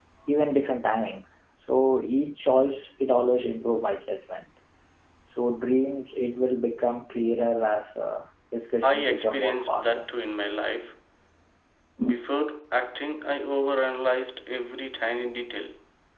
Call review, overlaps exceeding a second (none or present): present